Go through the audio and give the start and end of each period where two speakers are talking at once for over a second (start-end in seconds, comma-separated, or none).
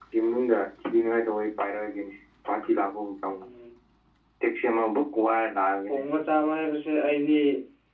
none